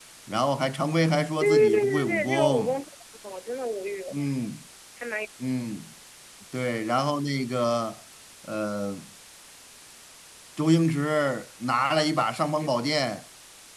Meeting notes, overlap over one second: present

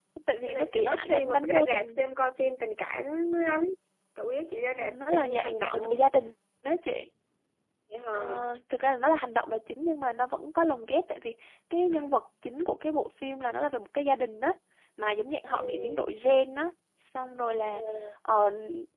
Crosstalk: present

